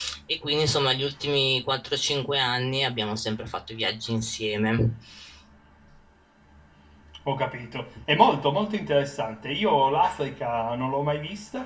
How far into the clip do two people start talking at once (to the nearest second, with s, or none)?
none